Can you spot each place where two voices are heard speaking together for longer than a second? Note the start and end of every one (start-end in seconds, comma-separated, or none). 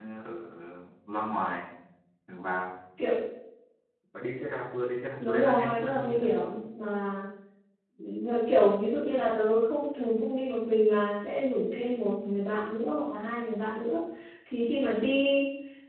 5.2-6.5